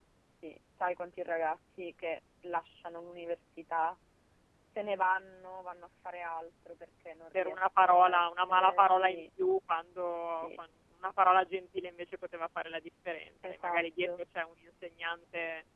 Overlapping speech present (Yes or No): Yes